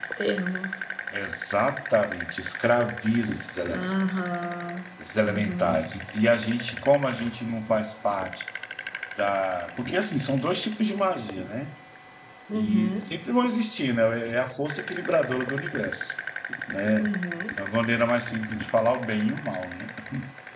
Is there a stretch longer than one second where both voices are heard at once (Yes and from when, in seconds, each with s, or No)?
No